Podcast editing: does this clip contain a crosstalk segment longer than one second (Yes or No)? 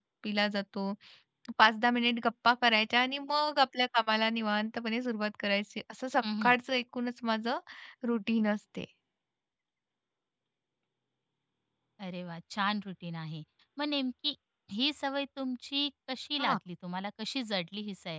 No